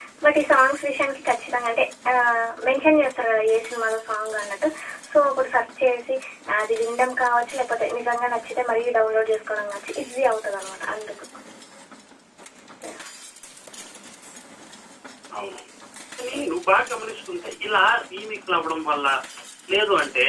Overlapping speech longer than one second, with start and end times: none

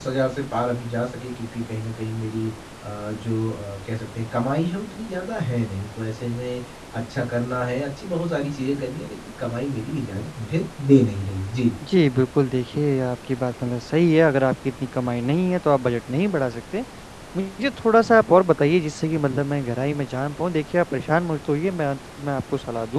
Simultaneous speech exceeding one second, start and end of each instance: none

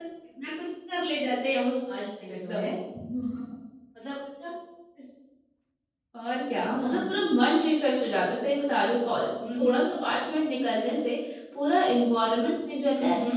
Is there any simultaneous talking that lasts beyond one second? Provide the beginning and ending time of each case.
none

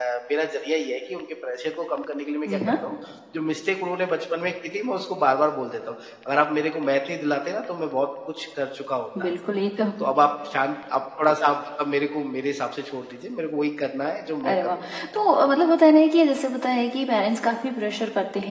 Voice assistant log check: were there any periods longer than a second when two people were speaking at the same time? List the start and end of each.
none

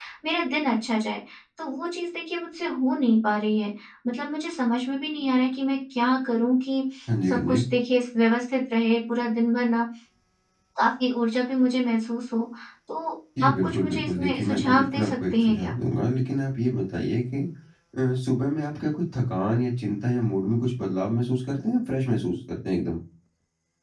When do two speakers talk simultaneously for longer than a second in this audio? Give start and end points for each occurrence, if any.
13.4-15.7

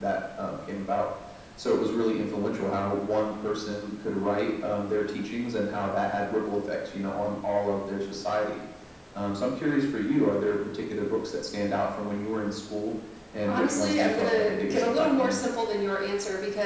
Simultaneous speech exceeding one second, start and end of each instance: 13.5-15.4

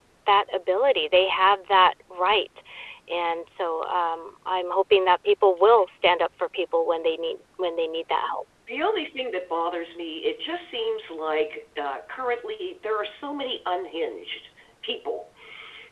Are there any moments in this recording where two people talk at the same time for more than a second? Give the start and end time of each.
none

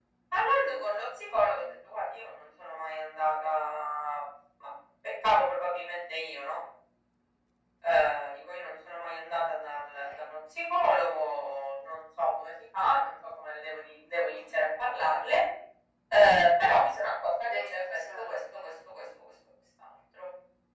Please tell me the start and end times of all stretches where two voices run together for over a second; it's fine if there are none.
17.5-18.7

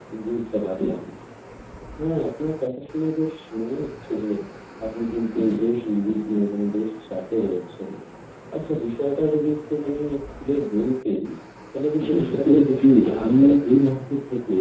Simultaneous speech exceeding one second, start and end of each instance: 12.0-13.7

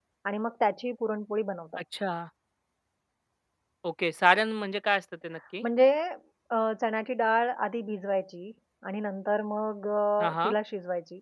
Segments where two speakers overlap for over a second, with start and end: none

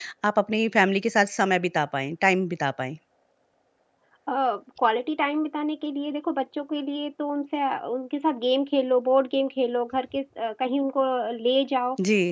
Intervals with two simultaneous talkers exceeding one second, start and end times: none

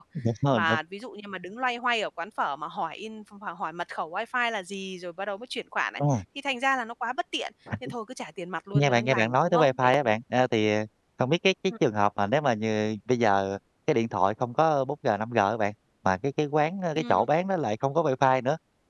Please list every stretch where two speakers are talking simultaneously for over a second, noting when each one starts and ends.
8.7-10.1

